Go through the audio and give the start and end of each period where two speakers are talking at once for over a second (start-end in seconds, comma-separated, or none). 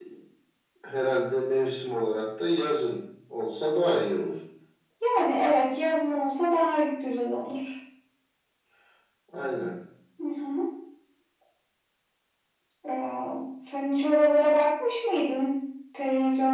none